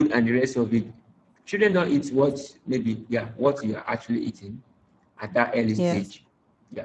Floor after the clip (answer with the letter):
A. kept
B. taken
A